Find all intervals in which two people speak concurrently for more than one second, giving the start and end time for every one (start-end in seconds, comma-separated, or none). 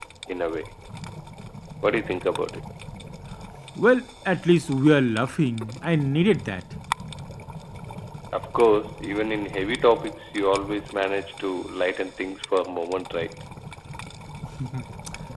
none